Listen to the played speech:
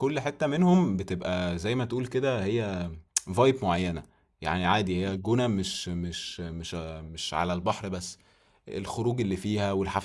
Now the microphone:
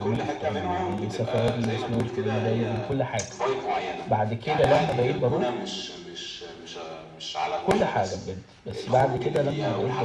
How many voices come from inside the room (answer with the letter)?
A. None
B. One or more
B